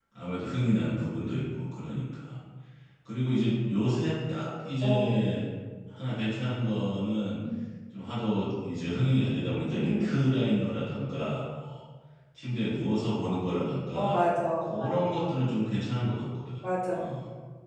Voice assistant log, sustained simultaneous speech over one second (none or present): none